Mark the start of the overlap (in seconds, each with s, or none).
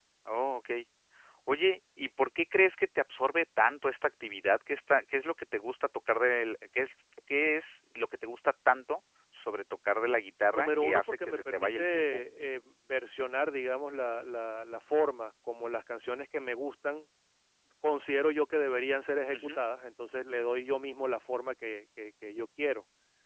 10.5 s